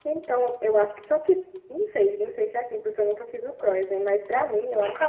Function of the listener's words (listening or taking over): listening